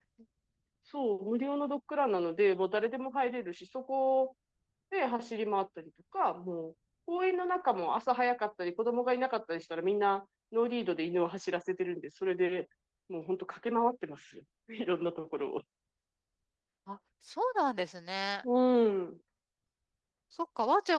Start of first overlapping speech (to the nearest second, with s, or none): none